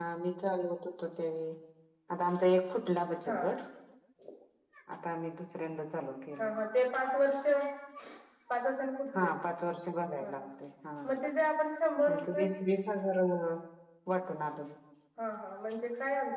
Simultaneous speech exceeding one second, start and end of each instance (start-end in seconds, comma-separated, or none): none